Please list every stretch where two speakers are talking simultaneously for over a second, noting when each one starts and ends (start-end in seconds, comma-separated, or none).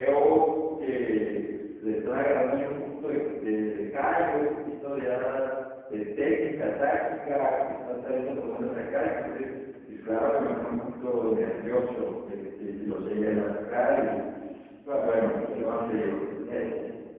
14.9-16.2